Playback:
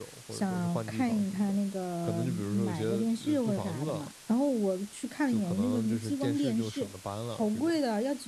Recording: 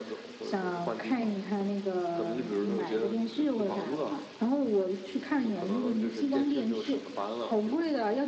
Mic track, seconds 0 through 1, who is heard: echo only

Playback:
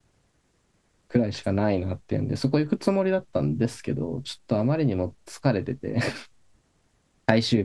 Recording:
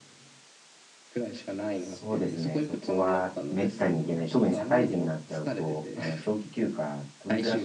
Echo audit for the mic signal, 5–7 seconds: both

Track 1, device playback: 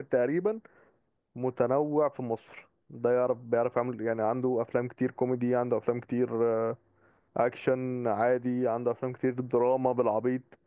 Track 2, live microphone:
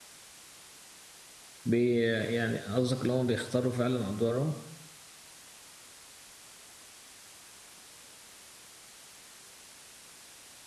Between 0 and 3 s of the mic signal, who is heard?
user only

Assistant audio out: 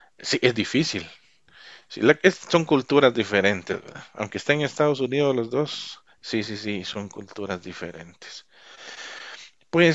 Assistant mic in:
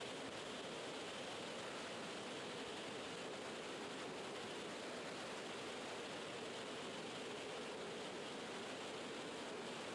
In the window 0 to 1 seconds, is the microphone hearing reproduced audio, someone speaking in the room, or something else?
neither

